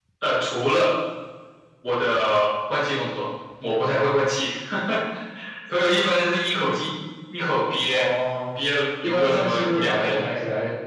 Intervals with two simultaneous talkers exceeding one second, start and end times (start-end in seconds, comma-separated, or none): 9.0-10.2